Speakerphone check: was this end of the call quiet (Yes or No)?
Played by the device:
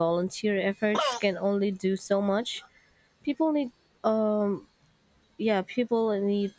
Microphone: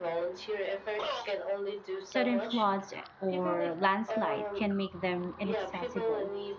No